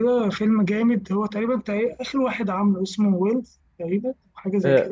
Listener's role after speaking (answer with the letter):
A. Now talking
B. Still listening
A